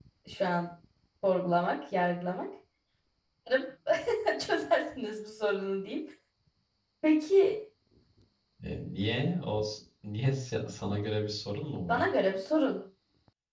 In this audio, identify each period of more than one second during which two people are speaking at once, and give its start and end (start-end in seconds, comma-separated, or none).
none